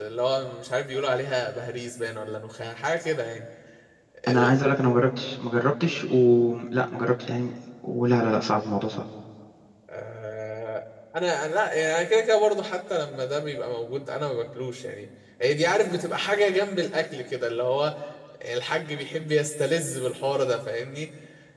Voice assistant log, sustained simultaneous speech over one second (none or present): none